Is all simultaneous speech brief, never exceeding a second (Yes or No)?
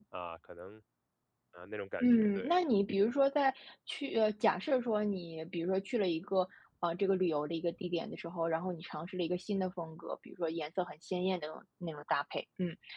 Yes